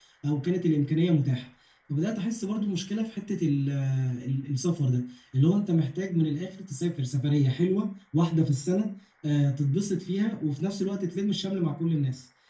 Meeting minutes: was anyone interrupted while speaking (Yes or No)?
No